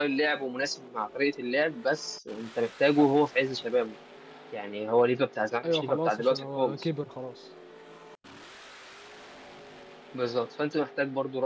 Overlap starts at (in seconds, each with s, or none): 5.6 s